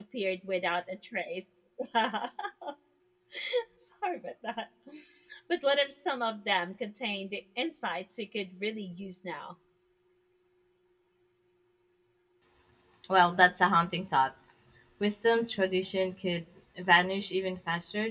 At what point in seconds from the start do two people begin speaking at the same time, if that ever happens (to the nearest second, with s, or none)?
none